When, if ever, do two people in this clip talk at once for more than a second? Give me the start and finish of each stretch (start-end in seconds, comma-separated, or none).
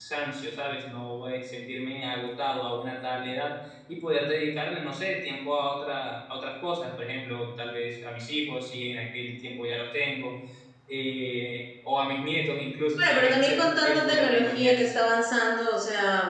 13.0-14.9